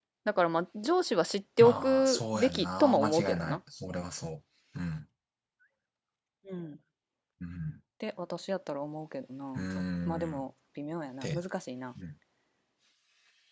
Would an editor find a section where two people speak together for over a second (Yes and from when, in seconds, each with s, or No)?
Yes, from 1.6 s